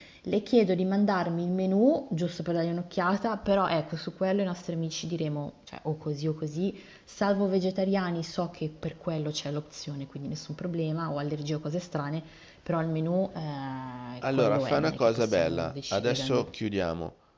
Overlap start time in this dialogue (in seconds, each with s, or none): 14.2 s